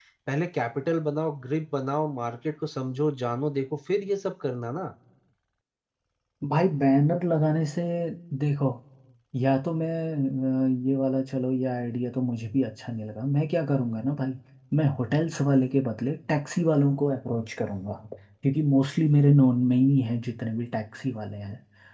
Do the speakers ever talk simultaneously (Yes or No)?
No